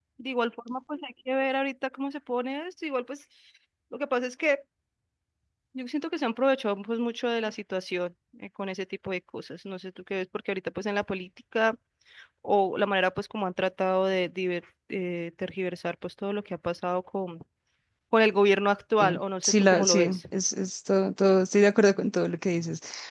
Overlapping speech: Yes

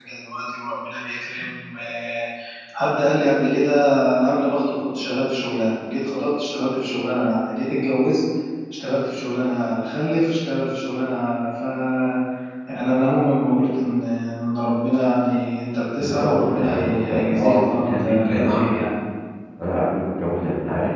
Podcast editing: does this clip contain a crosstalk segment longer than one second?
Yes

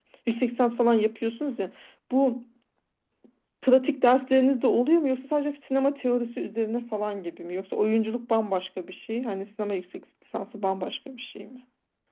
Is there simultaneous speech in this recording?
No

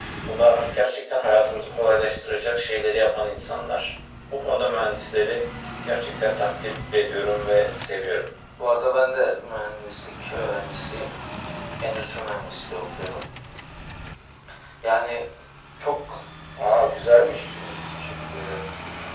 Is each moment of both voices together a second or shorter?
Yes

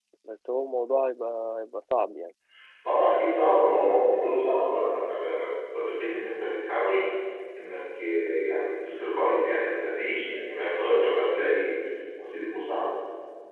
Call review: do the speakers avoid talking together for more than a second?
Yes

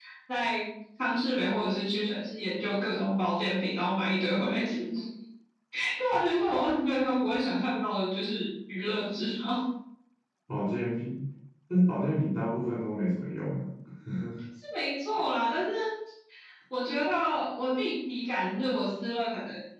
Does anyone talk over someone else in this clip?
No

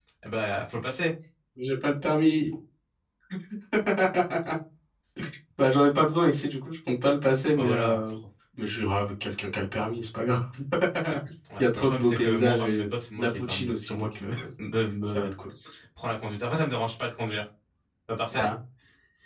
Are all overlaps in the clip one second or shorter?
No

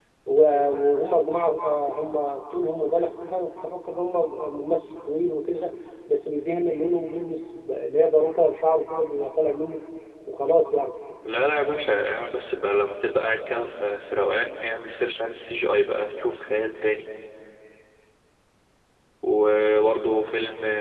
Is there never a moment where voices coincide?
Yes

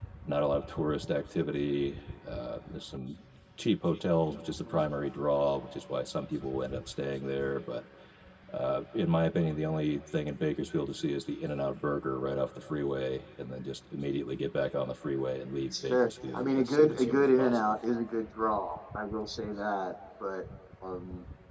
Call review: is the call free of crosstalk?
No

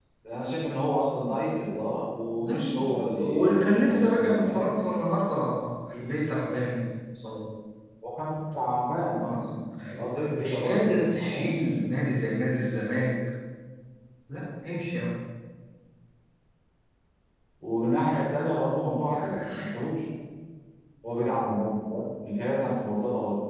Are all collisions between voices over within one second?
No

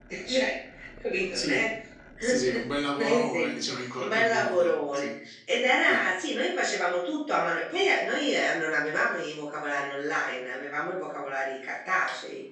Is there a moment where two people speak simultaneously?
Yes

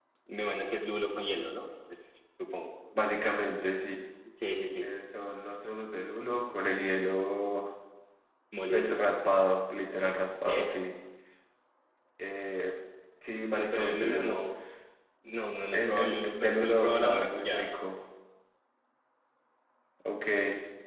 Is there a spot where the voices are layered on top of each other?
Yes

